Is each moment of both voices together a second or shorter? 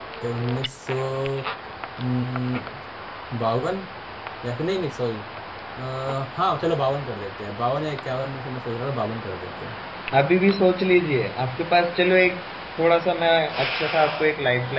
Yes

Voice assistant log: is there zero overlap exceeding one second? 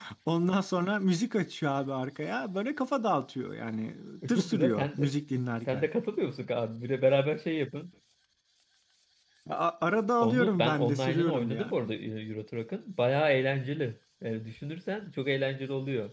No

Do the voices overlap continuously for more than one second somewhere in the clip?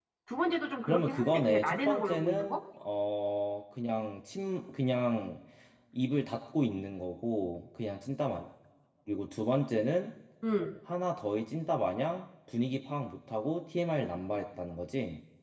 Yes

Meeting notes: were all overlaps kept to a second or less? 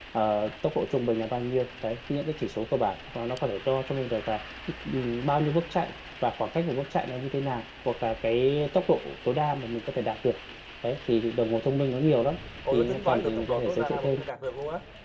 No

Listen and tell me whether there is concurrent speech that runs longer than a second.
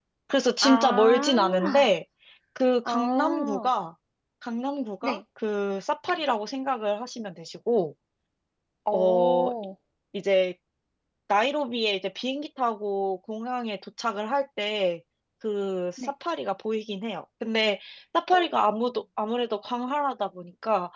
Yes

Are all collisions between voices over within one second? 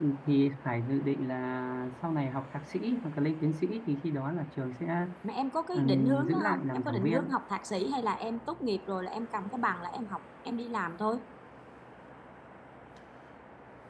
No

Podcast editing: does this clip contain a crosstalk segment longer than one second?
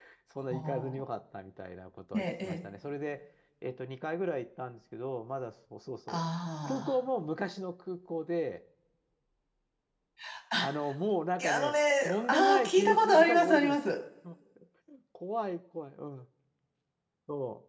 Yes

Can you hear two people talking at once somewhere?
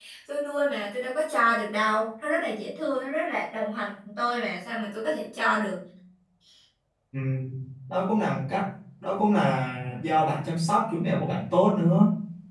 No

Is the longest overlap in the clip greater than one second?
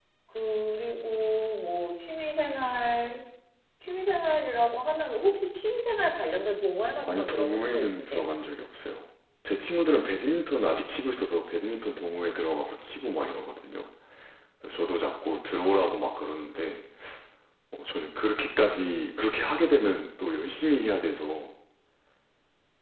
Yes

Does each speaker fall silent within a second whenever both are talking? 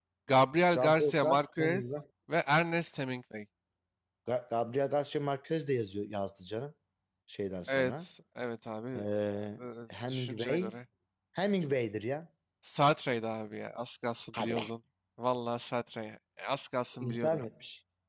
No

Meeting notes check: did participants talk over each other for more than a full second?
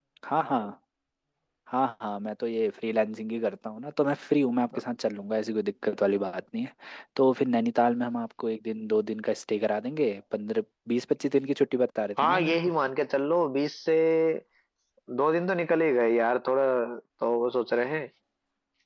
No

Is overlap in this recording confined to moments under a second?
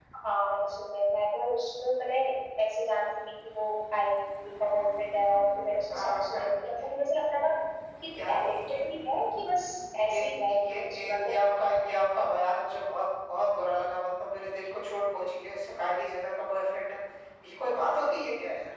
No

